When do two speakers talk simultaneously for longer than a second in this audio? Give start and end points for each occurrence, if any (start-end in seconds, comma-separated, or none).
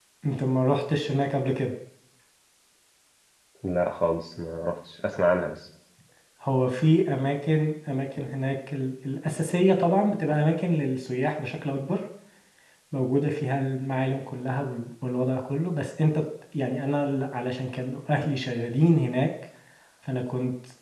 none